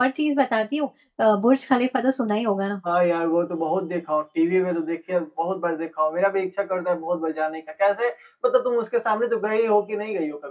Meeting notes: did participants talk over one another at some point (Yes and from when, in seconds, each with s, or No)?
No